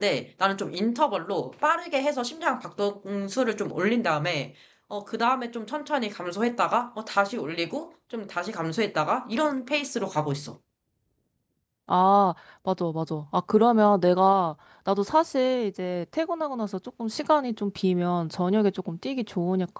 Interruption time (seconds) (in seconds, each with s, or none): none